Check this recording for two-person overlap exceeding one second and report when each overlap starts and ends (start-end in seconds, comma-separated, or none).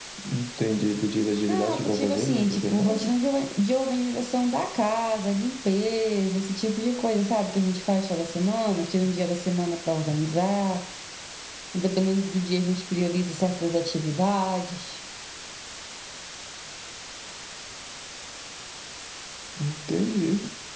1.4-3.0